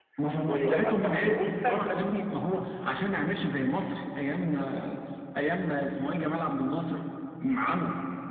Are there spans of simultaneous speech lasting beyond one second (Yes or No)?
Yes